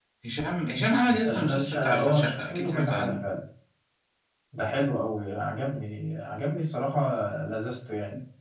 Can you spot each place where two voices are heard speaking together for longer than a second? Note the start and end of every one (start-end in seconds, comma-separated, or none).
1.2-3.2